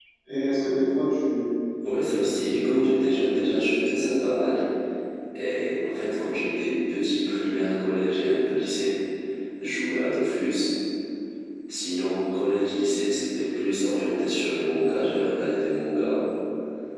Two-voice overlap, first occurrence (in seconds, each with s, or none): 2.2 s